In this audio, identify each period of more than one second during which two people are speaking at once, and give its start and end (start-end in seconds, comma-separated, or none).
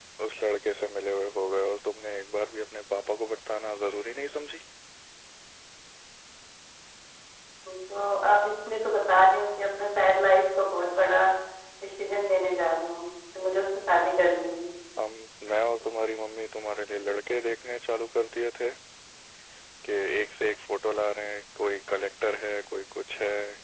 none